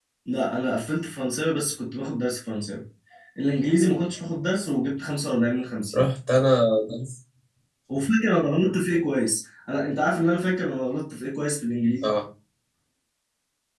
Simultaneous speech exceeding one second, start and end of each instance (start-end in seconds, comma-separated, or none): none